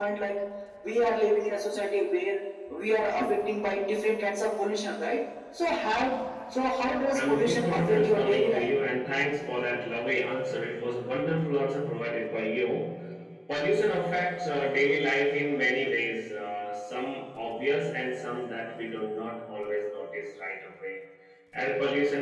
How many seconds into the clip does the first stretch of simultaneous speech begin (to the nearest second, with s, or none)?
7 s